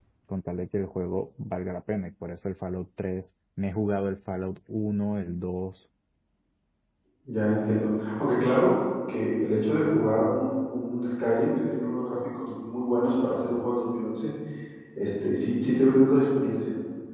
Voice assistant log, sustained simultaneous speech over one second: none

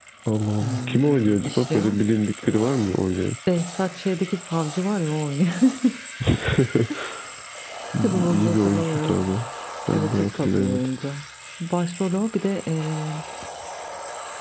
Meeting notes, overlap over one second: present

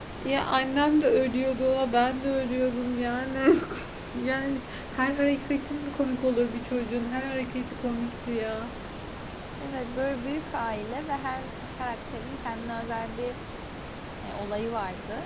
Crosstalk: none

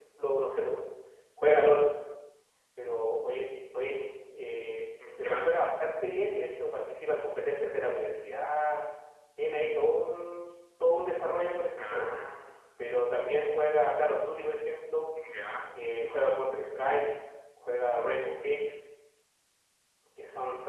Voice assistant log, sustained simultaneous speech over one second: none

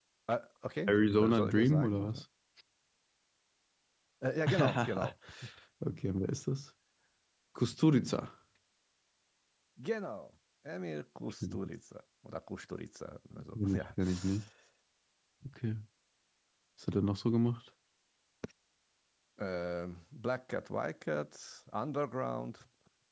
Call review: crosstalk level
present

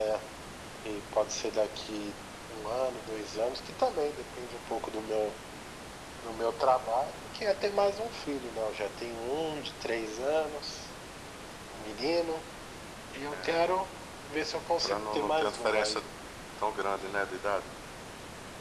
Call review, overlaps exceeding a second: present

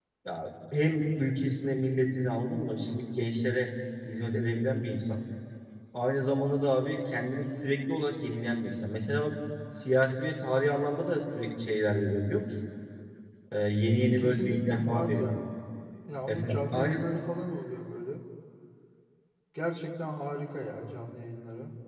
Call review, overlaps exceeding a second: present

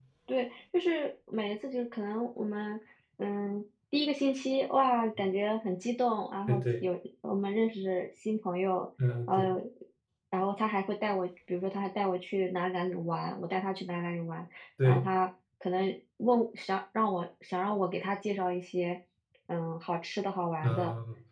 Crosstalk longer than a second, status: none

